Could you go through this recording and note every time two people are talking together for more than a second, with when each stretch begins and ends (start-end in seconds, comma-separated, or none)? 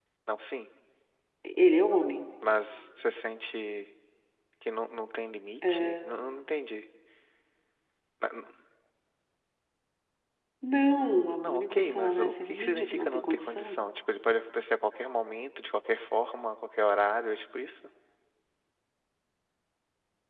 11.4-13.8